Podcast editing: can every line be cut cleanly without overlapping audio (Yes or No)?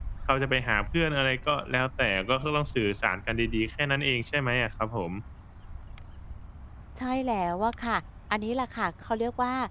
Yes